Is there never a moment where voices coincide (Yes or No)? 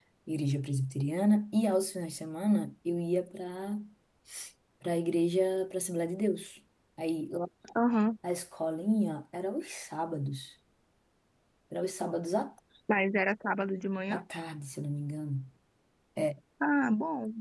Yes